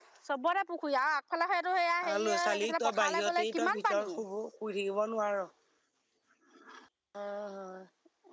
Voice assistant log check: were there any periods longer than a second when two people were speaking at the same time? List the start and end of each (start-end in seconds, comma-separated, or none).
2.1-4.1